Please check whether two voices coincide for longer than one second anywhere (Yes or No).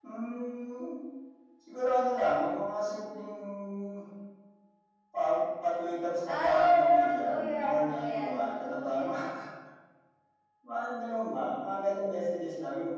Yes